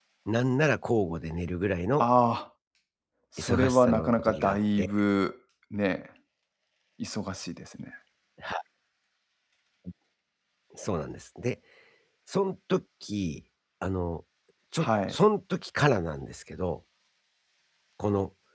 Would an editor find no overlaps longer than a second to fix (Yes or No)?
No